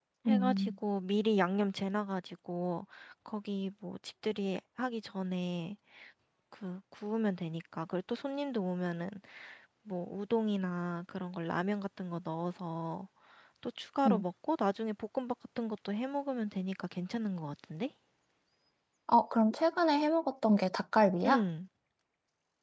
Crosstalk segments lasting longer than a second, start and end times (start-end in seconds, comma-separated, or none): none